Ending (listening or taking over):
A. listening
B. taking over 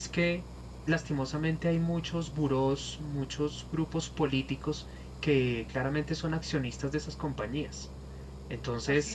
A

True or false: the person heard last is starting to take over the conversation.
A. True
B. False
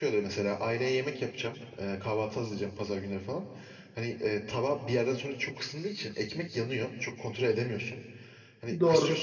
B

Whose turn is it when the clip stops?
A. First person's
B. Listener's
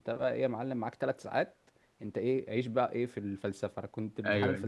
A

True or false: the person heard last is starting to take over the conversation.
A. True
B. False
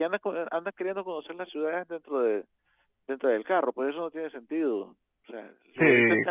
A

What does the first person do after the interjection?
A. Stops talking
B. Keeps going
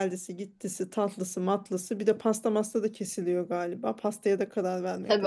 A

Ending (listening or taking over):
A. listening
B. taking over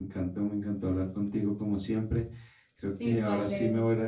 A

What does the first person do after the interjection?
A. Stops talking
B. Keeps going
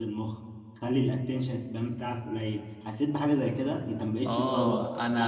A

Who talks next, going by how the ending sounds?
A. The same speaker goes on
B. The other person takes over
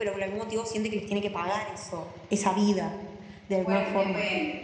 B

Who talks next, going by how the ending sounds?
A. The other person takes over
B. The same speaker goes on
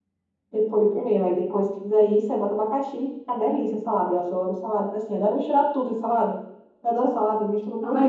A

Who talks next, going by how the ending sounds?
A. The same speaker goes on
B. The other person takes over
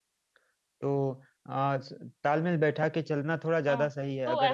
B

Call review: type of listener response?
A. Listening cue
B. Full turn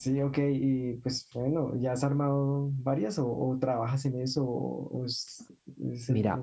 B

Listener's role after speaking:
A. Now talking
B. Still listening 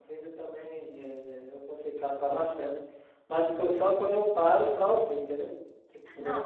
B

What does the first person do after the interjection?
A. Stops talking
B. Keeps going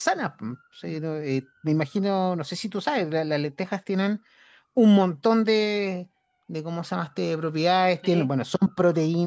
B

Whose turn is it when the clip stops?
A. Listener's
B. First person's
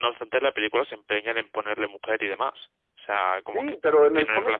A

